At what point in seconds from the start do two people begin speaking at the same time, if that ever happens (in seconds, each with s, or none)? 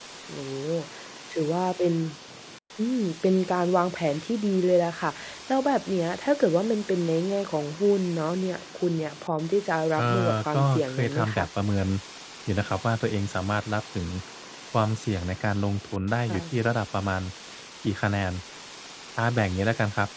10.0 s